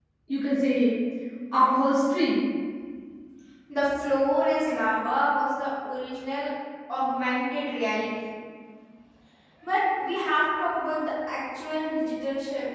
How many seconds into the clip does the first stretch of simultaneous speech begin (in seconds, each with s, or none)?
none